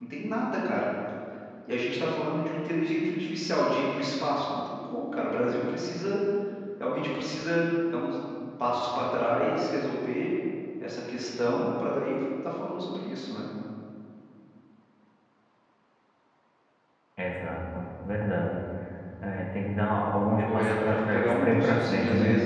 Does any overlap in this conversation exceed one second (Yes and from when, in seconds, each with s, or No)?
Yes, from 20.5 s